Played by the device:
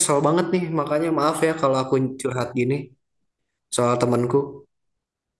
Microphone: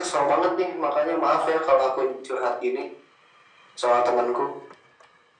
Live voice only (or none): none